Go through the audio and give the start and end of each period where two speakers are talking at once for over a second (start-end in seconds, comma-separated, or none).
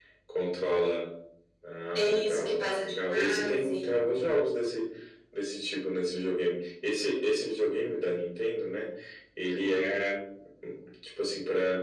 1.9-4.0